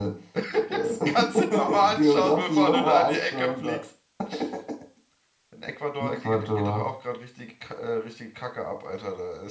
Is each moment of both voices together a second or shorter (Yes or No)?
No